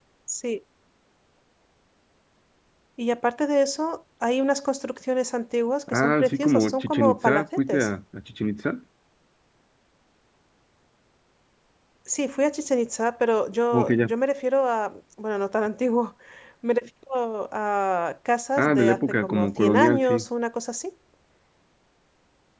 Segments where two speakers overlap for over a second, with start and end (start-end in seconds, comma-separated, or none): 5.9-7.9, 18.6-20.2